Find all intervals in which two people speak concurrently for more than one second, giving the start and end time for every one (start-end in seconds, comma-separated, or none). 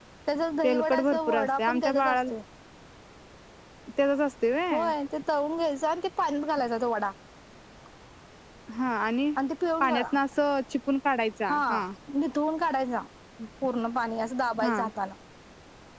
0.6-2.2